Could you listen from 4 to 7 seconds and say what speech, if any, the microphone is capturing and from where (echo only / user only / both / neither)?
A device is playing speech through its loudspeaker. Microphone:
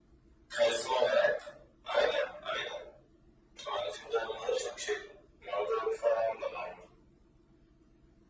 echo only